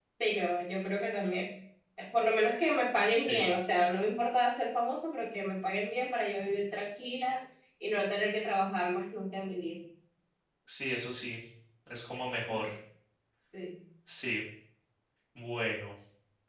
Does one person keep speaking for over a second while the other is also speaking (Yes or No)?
No